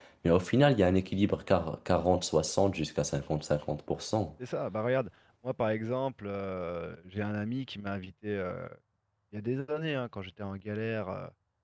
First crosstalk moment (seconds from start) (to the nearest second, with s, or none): none